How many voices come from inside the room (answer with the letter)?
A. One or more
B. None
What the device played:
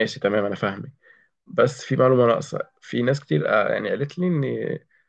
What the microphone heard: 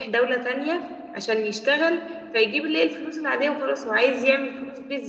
A